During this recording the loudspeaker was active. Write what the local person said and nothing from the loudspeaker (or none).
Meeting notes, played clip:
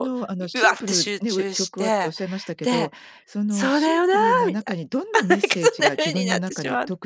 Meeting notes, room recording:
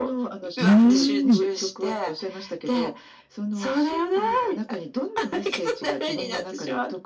うーん。